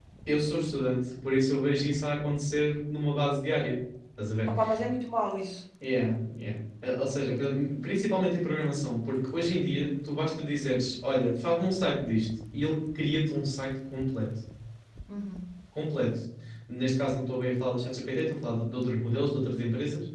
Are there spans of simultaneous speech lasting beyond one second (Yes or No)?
No